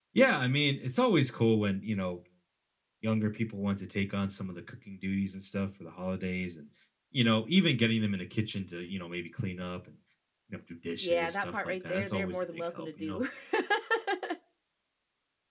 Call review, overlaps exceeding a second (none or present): present